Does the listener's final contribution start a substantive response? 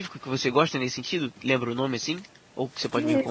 Yes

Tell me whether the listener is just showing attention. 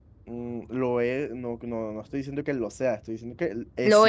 Yes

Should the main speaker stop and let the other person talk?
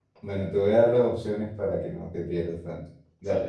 No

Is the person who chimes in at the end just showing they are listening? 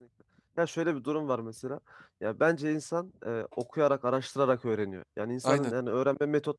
Yes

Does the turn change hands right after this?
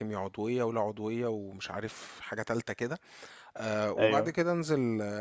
No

